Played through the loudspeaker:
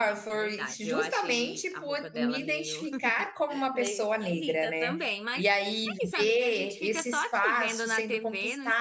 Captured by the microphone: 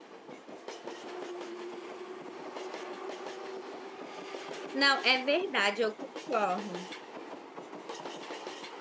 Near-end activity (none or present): present